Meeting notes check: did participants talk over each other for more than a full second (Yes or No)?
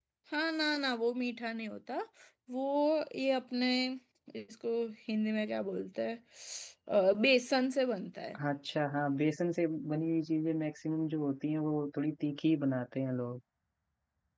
No